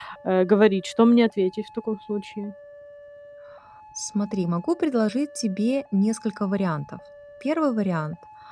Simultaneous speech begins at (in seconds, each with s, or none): none